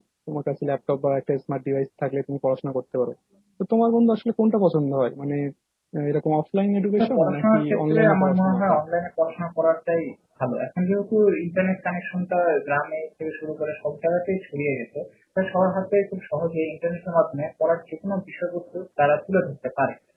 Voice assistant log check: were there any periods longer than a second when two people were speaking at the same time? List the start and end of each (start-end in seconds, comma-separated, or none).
7.0-8.7